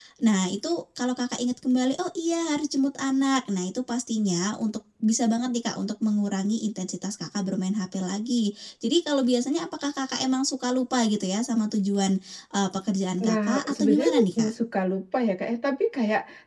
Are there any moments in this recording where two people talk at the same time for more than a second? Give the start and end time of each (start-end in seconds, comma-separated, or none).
13.2-14.5